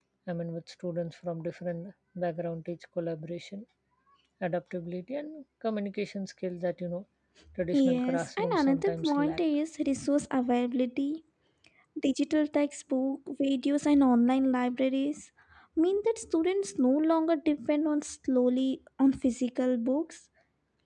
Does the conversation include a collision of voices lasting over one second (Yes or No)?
Yes